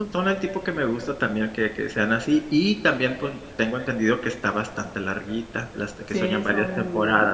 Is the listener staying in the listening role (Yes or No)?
No